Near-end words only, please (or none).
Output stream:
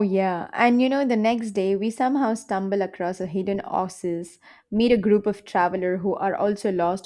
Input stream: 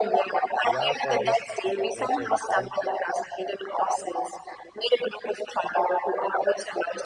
we are for this epic adventure we couldn't